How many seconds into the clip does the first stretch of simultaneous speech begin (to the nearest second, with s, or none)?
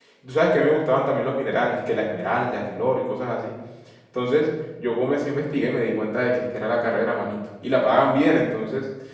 none